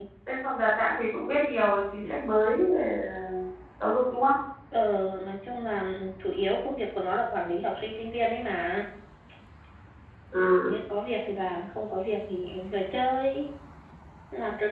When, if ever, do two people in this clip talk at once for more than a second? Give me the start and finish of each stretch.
none

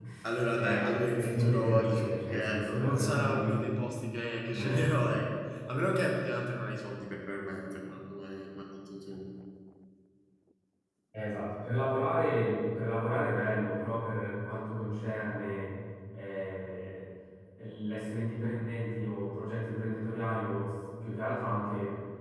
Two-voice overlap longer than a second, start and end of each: 0.5-3.9

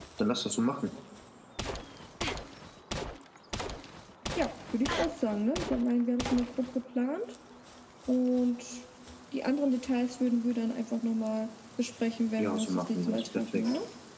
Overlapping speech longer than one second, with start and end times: 12.4-13.6

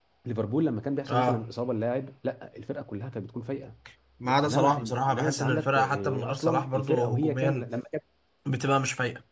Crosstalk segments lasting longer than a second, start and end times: 4.4-7.7

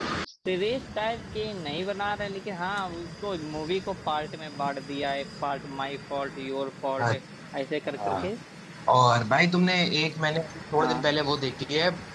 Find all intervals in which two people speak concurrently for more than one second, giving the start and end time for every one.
none

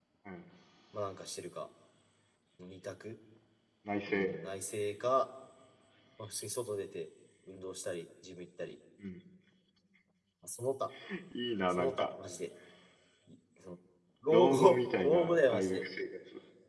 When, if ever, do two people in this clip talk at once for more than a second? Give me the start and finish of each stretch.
14.3-15.8

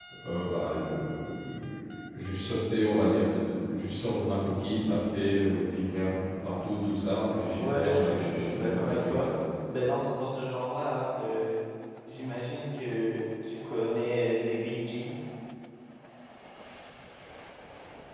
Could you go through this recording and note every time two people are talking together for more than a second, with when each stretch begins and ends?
7.6-9.3

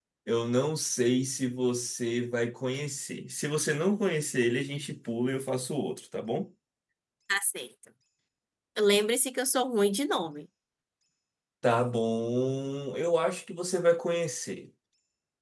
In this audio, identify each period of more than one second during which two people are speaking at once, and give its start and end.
none

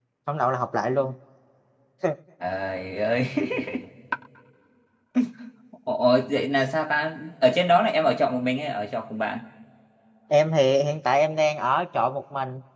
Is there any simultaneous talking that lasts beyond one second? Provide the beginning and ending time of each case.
none

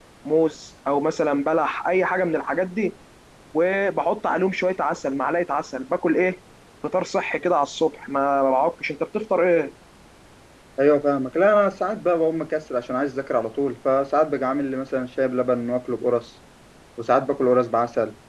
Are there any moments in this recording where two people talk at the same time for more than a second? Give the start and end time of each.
none

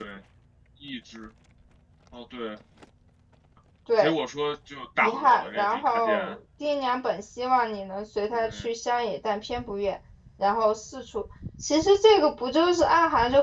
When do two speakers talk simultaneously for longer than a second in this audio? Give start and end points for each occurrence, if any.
5.0-6.3

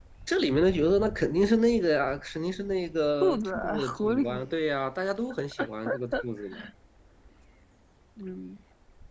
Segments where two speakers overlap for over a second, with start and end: 3.2-4.4

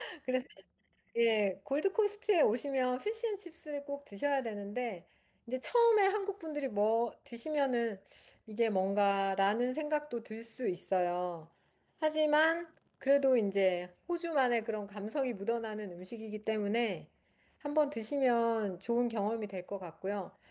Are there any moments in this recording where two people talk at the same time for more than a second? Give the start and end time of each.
none

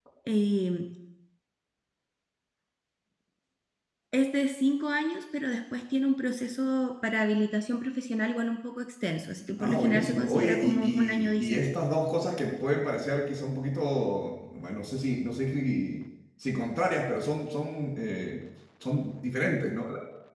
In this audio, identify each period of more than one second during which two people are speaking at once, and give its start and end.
9.6-11.7

